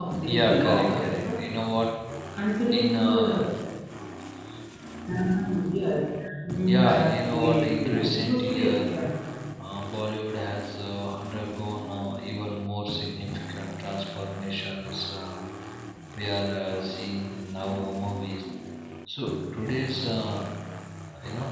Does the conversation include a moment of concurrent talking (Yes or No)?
Yes